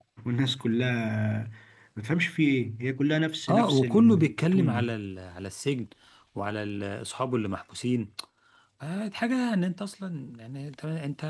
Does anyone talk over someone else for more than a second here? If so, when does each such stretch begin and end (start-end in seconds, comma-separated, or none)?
3.5-4.9